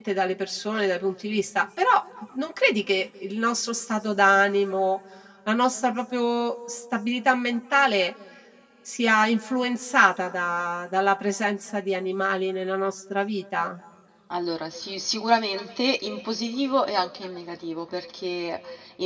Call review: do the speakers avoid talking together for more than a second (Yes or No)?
Yes